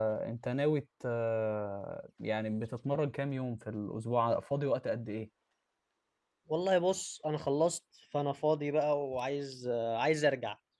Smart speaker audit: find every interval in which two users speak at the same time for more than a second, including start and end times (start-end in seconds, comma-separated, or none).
none